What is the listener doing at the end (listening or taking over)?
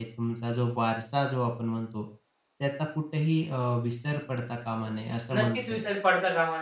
taking over